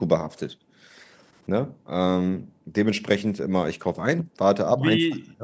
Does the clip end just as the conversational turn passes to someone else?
Yes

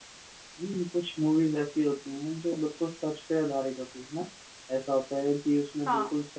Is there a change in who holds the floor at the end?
No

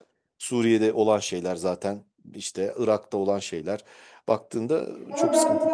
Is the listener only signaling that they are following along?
No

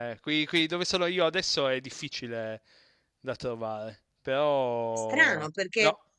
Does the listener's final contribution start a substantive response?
Yes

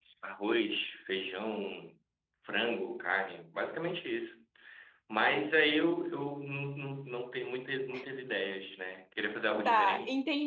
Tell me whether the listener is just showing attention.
No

